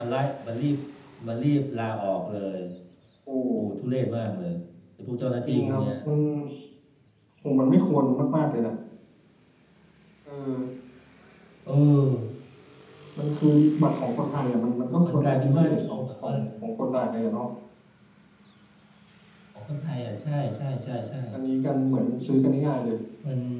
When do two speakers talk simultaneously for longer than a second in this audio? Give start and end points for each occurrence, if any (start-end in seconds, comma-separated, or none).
15.1-16.3